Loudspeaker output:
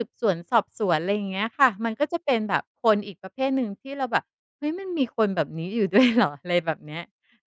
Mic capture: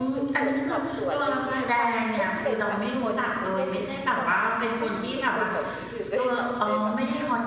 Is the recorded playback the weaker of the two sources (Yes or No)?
Yes